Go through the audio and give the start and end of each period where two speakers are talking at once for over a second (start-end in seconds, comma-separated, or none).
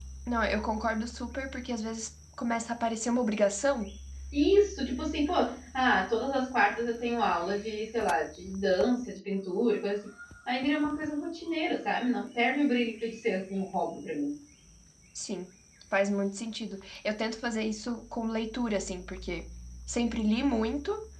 none